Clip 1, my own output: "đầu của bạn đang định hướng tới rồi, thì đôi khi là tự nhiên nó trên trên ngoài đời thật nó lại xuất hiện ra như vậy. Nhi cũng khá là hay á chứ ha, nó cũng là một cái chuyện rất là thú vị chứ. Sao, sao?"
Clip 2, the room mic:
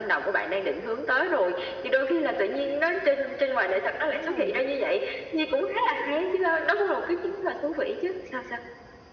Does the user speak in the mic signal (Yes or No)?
Yes